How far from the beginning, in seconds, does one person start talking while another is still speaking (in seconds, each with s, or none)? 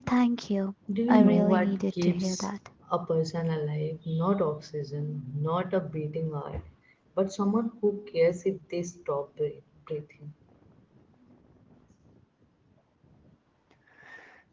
1.1 s